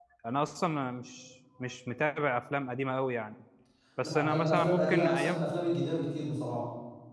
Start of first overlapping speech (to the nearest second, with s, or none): 4 s